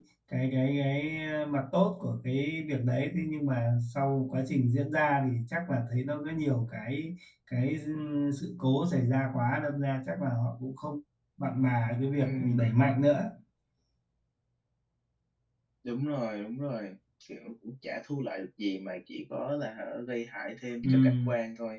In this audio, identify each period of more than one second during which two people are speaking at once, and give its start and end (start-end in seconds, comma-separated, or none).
none